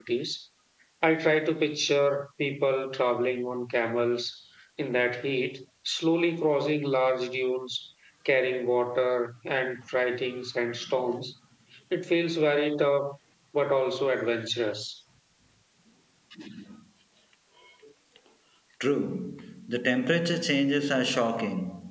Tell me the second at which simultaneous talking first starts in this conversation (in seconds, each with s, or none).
none